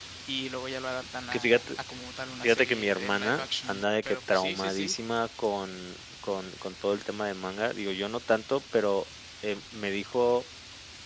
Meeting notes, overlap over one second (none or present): present